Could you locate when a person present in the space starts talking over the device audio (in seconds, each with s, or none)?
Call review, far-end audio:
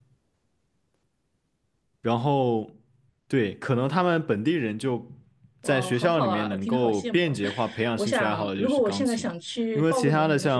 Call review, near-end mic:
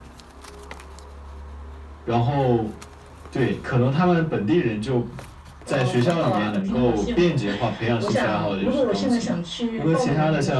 none